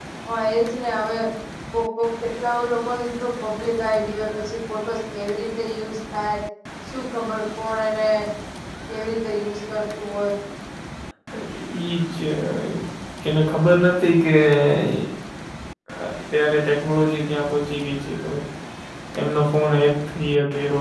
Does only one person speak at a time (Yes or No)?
Yes